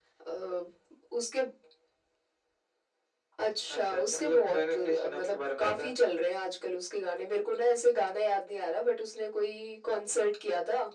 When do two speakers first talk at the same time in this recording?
3.8 s

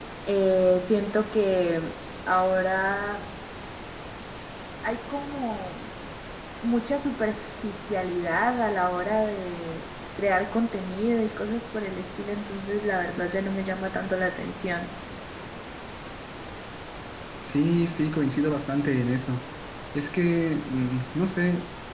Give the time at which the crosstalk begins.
none

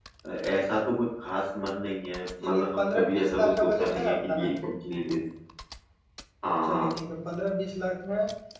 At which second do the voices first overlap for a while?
2.4 s

